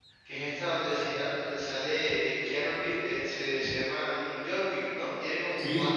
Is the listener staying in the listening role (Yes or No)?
Yes